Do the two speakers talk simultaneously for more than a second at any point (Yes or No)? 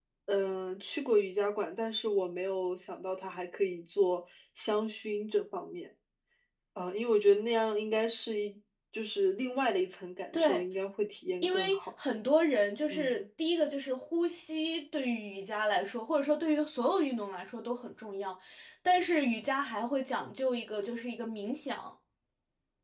No